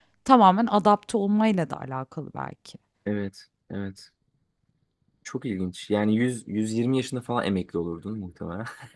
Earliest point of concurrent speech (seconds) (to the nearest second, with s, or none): none